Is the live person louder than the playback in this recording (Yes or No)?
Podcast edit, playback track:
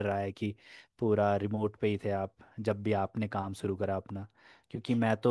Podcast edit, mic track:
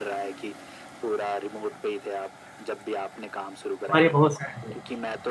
Yes